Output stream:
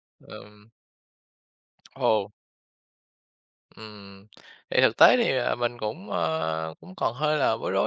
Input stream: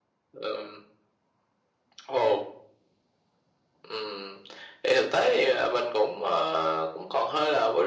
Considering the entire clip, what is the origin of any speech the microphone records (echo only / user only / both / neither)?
echo only